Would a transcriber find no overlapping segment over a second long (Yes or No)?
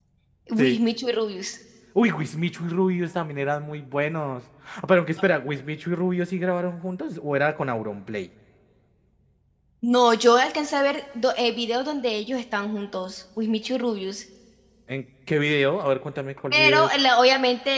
Yes